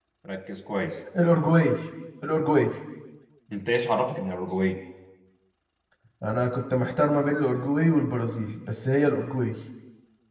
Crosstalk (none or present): none